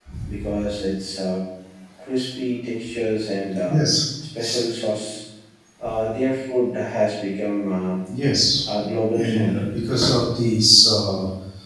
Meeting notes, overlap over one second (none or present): none